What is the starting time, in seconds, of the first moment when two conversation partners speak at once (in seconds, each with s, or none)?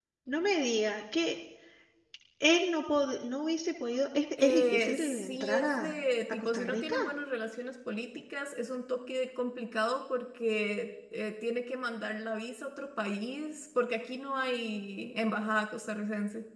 4.4 s